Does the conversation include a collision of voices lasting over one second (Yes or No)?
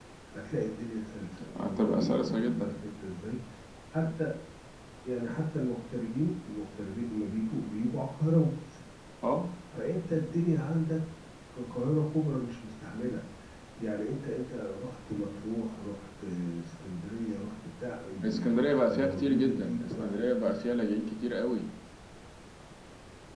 Yes